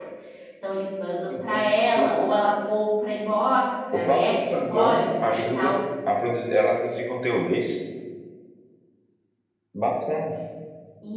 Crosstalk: present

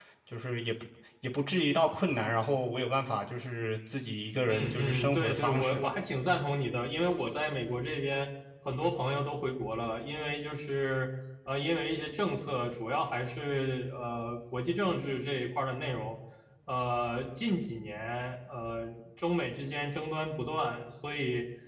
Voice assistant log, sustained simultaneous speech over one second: present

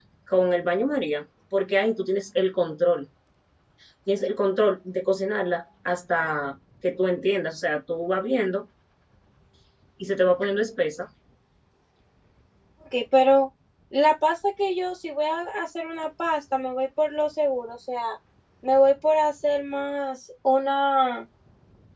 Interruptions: none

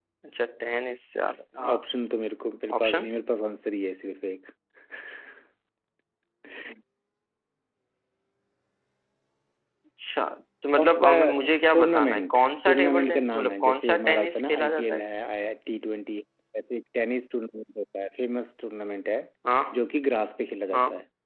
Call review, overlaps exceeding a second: present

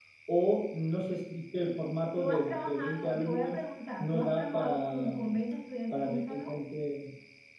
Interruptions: present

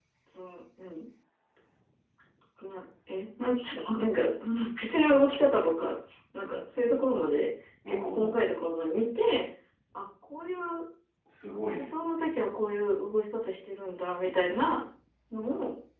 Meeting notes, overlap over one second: none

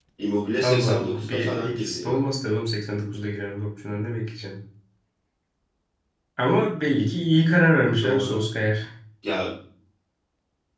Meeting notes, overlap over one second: present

